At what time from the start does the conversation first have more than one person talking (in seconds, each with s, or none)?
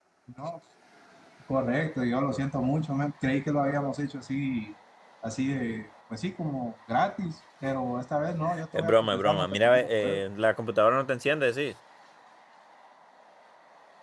8.7 s